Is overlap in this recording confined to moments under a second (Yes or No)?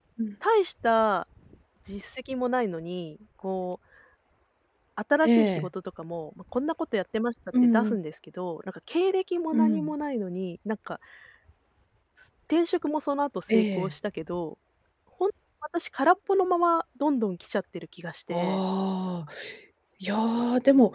Yes